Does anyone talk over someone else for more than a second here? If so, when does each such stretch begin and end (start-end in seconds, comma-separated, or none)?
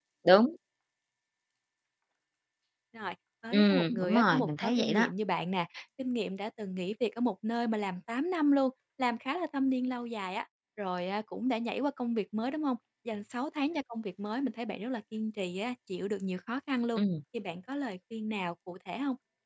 3.5-5.1